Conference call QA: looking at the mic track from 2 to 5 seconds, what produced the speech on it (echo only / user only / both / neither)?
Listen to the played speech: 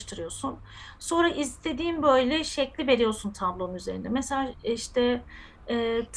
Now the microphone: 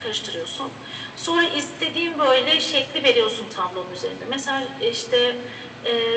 echo only